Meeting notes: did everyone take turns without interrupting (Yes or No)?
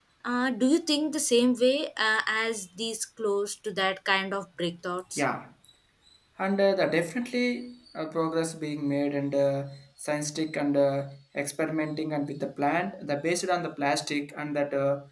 Yes